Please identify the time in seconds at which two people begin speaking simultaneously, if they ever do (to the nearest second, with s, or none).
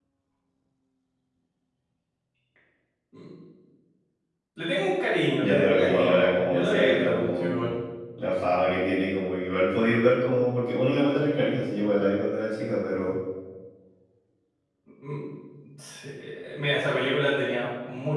5 s